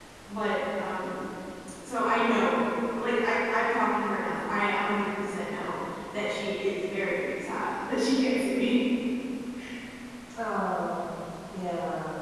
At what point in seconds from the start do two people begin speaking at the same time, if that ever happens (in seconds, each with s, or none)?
none